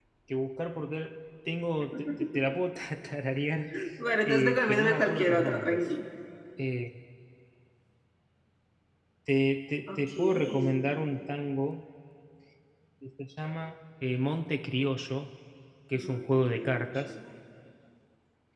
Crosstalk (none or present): present